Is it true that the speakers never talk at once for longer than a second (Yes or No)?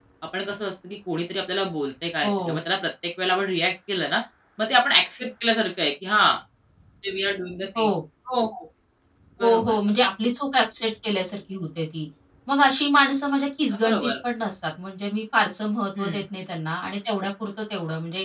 Yes